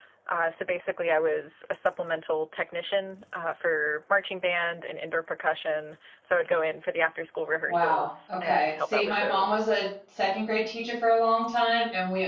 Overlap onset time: 7.7 s

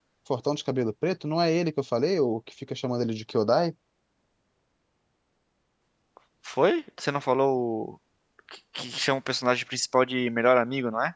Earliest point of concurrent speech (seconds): none

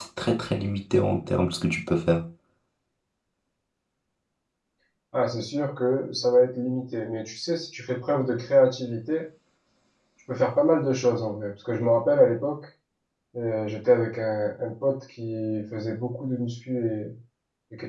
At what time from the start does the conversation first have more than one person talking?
none

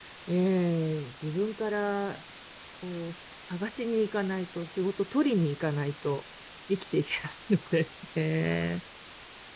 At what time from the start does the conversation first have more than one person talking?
none

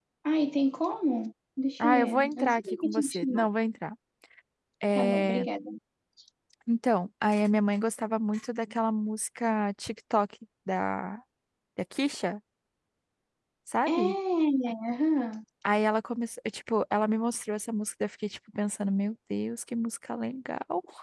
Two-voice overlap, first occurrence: 1.8 s

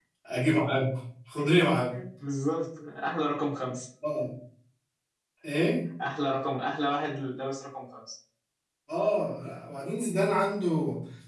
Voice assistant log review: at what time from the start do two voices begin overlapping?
none

